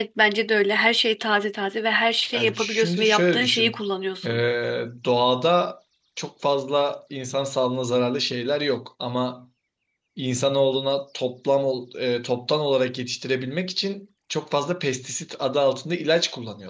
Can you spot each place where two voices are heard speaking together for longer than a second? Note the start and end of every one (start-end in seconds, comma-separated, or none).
2.3-3.8